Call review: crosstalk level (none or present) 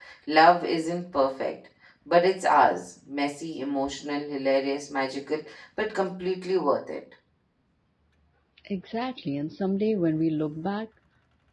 none